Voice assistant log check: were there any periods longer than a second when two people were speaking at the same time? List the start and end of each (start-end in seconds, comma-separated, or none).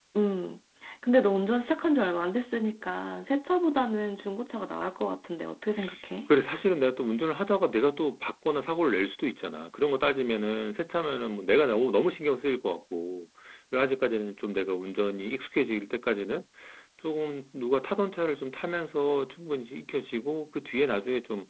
none